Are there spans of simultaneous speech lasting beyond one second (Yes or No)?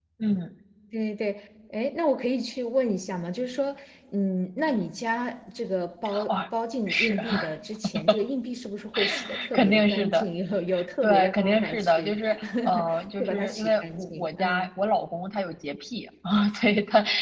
Yes